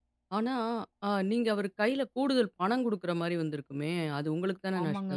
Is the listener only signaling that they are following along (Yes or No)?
No